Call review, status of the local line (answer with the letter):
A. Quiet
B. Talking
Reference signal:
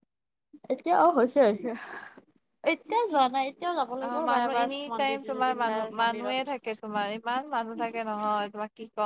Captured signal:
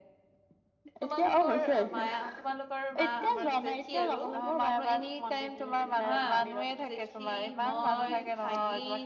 B